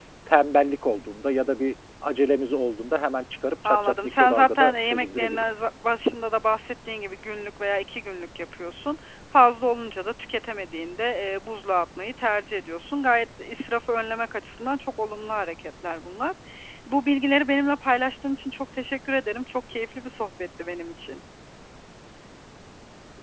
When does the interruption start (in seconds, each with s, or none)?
3.6 s